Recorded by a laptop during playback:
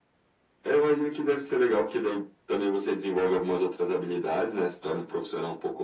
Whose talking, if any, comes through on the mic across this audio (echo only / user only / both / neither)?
echo only